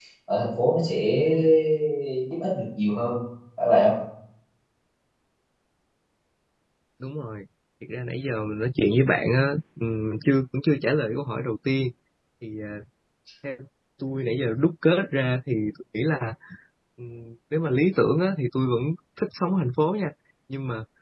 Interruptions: none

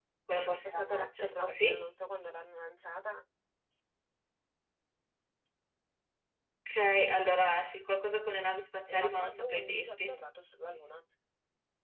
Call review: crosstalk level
present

